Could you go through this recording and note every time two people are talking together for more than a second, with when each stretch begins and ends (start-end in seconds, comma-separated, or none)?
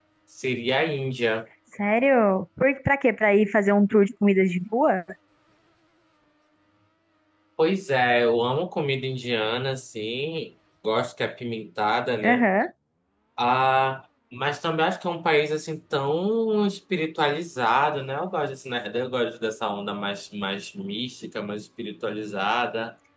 none